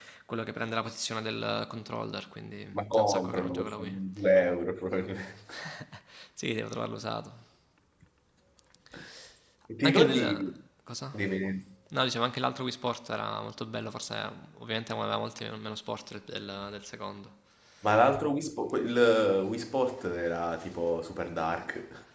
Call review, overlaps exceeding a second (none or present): present